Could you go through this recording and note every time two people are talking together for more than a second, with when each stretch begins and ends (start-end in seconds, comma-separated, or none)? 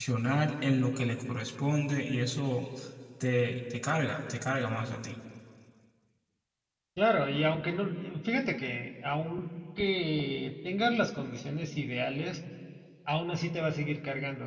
none